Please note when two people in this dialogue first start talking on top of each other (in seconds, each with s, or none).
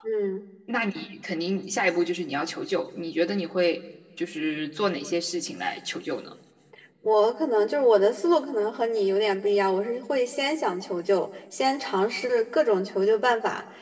none